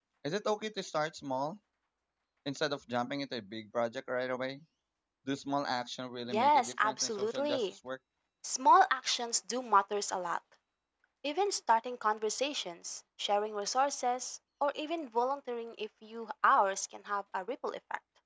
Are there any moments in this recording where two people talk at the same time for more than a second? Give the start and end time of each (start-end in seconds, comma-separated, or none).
6.3-7.7